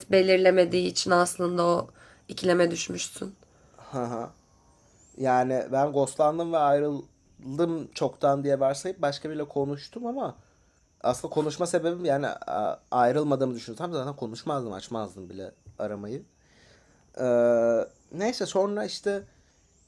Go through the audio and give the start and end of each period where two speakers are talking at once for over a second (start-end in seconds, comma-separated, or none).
none